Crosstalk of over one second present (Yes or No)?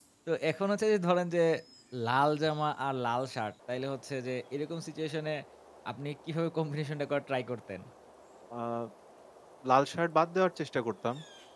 No